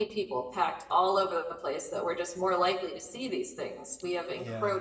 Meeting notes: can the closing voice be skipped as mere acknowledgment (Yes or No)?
Yes